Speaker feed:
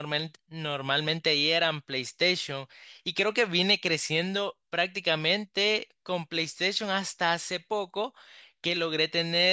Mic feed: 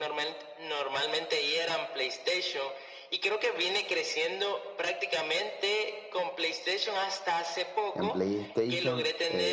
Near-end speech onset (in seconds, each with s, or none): 7.9 s